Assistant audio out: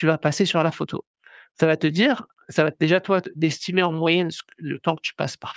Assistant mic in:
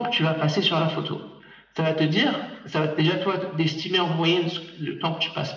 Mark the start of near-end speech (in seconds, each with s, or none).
none